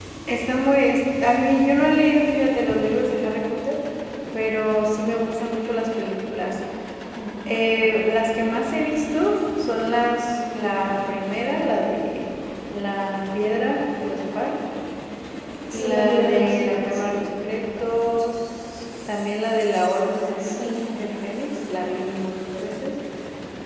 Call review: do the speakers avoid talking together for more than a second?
No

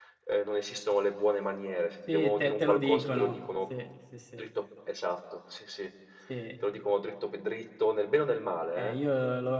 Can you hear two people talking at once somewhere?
Yes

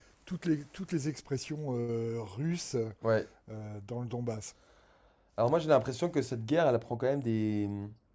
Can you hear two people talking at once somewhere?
No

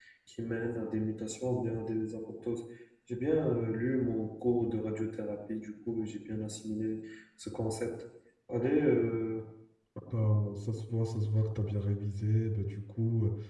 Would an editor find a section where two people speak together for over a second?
No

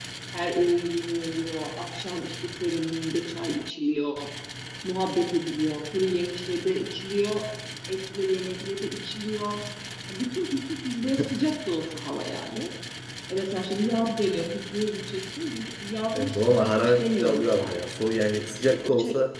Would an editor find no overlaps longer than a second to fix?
No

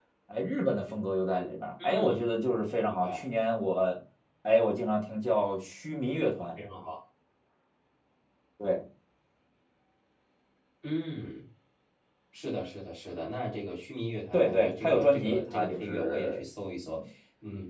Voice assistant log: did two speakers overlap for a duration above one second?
Yes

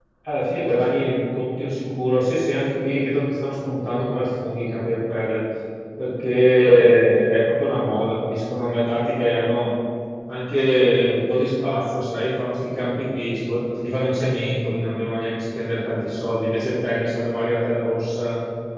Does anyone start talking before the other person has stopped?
No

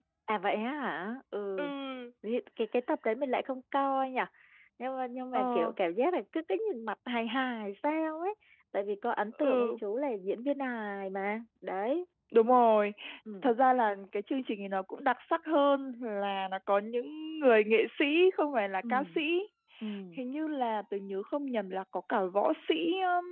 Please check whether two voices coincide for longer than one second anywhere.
No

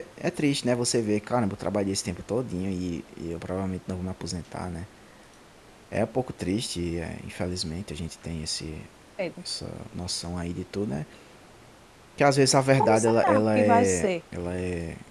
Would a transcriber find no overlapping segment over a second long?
No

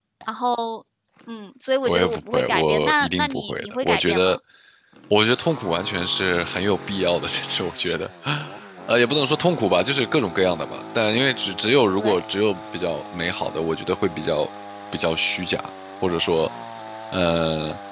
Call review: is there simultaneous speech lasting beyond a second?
Yes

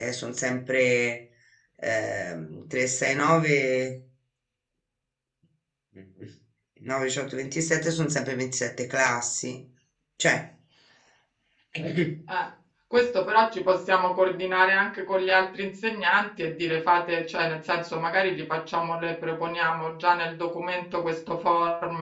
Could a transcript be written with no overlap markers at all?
Yes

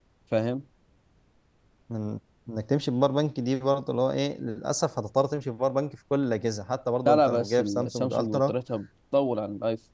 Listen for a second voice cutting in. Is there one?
Yes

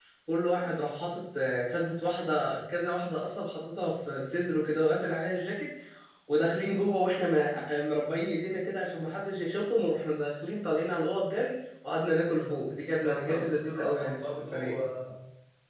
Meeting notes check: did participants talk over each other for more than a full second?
Yes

